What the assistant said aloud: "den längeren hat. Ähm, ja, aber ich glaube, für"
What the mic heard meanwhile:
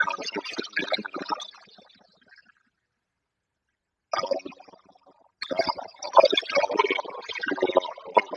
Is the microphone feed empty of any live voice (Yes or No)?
Yes